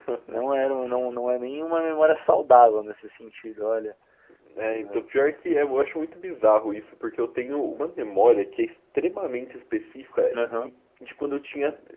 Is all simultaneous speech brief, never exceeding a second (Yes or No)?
Yes